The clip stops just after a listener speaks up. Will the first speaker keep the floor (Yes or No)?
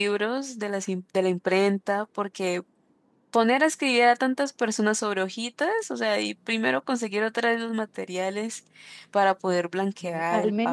No